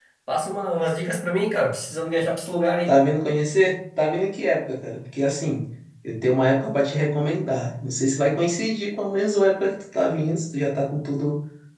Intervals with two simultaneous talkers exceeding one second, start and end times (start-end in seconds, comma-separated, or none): none